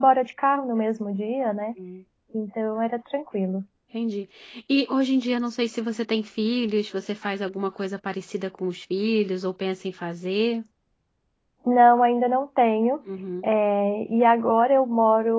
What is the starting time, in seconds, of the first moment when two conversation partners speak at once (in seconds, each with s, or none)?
none